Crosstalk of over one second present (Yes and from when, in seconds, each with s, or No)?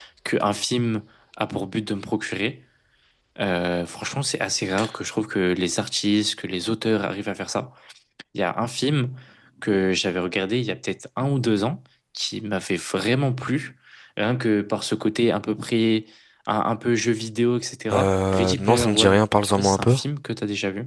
Yes, from 17.9 s